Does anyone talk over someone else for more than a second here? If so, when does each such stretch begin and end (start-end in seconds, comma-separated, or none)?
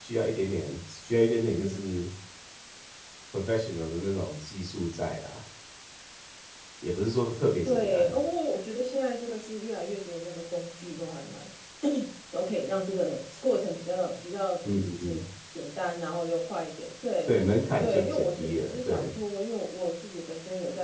17.8-19.1